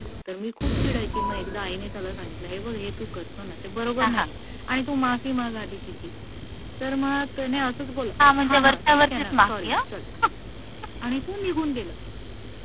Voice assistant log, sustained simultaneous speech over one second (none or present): present